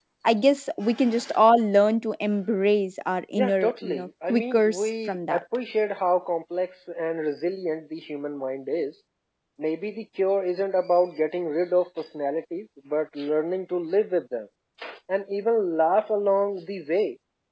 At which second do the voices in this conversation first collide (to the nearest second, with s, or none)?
3 s